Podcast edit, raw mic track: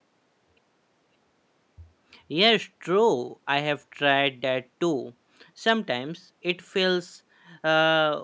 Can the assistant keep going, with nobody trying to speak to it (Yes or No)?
No